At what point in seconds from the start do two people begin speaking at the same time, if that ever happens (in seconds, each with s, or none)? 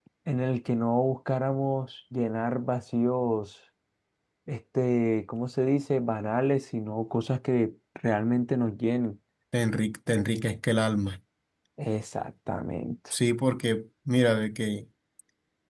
none